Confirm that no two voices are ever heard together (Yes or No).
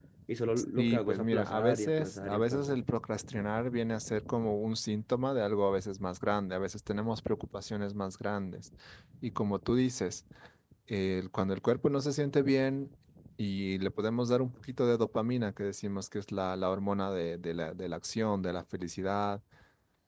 No